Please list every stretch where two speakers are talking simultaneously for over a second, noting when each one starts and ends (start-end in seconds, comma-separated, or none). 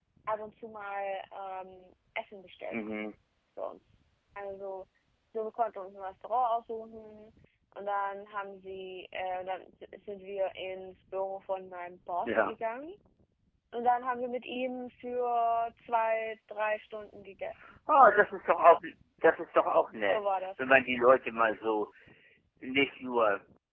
none